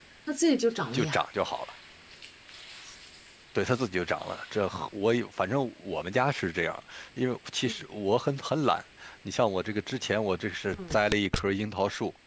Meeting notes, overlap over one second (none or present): none